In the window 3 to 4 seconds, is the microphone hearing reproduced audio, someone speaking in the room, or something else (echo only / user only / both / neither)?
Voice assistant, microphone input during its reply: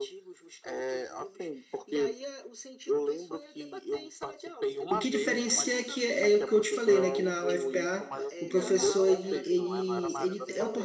echo only